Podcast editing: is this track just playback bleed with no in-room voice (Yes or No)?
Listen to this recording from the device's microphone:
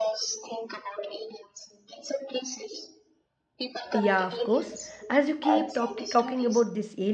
No